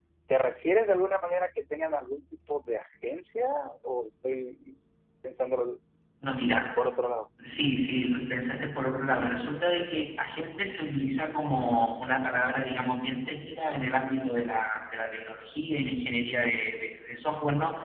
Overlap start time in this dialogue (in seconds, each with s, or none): none